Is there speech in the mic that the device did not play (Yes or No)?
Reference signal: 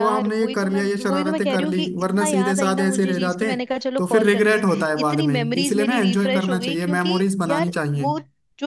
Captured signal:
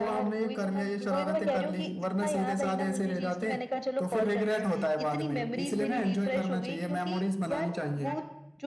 No